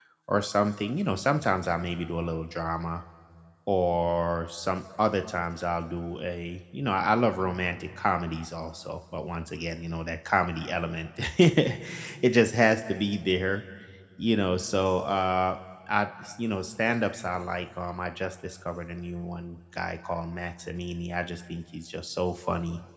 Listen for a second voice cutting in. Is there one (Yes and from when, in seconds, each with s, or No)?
No